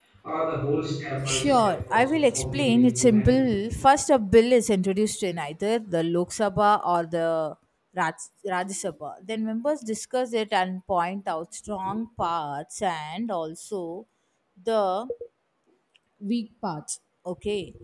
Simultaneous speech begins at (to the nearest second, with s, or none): 1 s